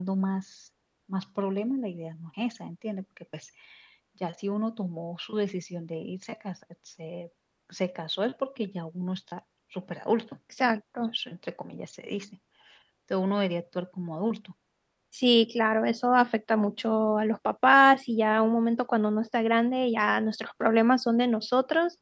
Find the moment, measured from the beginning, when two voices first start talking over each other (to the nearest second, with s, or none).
none